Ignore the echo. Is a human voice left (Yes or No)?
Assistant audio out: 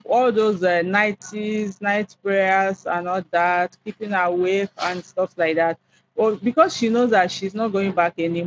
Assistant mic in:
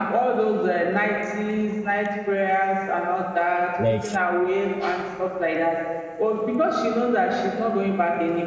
Yes